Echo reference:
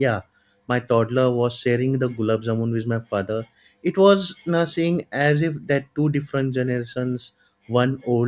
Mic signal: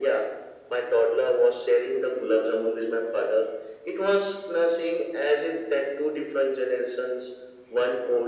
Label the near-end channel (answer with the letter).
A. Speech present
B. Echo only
B